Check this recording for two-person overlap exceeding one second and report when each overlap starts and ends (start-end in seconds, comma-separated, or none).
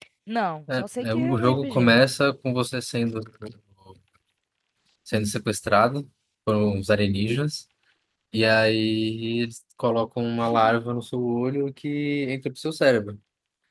0.8-2.1